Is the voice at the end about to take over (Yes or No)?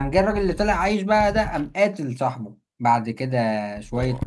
No